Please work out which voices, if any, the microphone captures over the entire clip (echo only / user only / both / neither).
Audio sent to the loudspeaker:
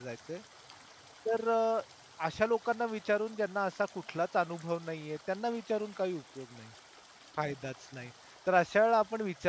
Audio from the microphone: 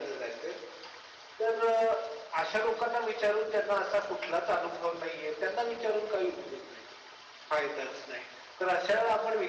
echo only